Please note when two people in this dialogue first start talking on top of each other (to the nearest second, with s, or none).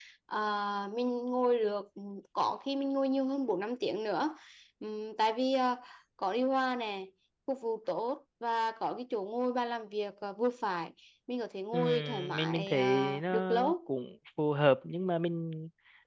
12 s